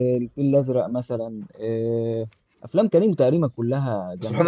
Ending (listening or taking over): taking over